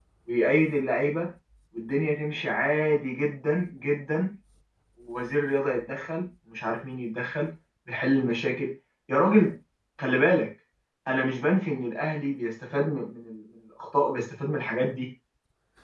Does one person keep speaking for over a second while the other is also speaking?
No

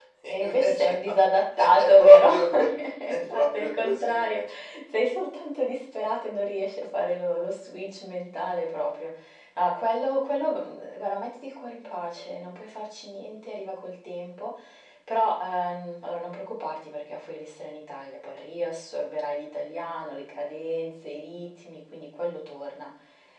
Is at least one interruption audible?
Yes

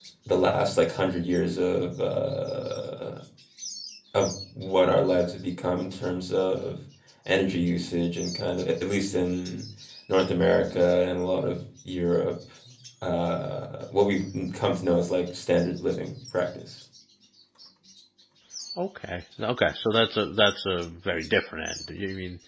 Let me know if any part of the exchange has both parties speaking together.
No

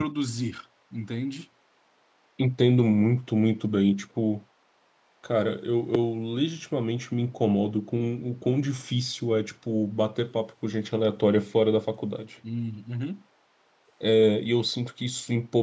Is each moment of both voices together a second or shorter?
Yes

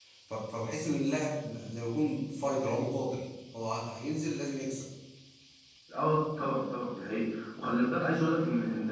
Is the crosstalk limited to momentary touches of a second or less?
Yes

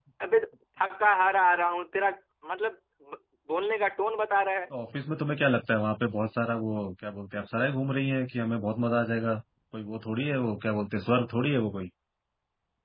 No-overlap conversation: Yes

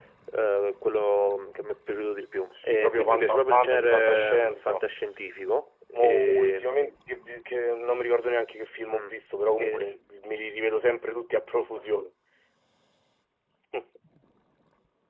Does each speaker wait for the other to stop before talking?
No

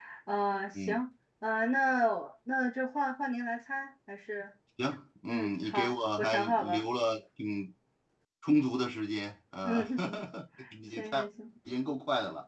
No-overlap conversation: No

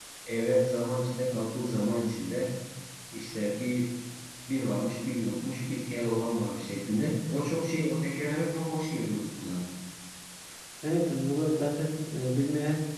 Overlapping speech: No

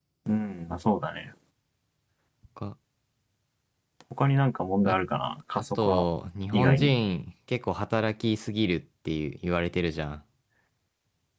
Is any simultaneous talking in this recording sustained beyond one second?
No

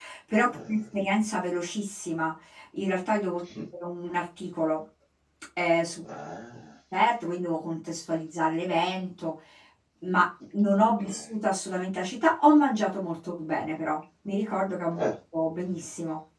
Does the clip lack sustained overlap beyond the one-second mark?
Yes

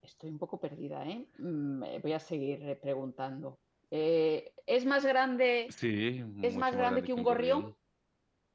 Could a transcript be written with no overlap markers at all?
No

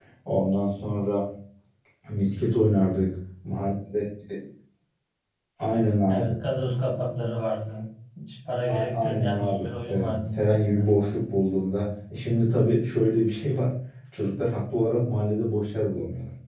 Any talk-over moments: Yes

